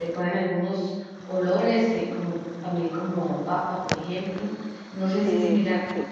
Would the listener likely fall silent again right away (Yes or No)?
No